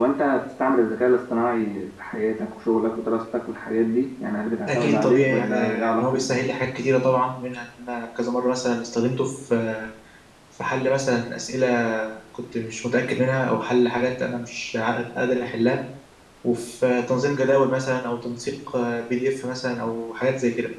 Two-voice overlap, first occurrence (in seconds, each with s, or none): 4.7 s